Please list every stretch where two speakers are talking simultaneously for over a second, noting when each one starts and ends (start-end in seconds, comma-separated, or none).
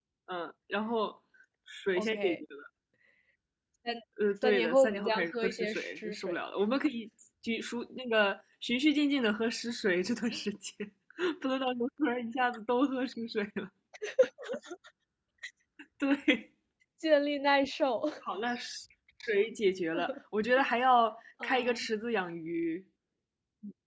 4.4-6.4